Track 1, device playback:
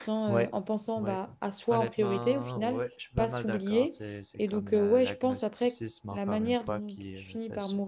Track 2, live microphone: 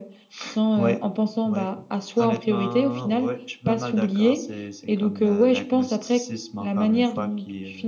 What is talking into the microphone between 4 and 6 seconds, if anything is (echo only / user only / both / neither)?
echo only